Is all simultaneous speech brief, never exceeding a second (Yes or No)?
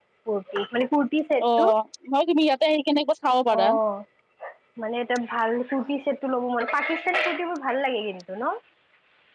Yes